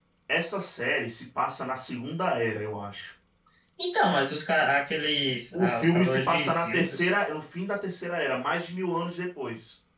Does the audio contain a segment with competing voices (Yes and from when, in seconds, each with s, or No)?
Yes, from 5.5 s